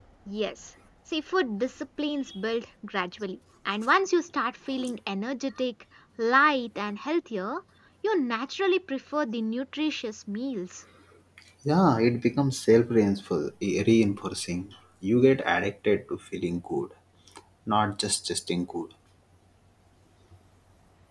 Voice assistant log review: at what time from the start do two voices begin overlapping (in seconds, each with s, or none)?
none